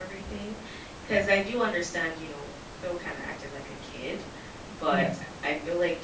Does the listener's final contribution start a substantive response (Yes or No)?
No